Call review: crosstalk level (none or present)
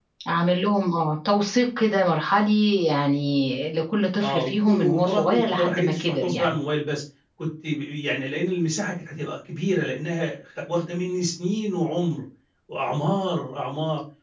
present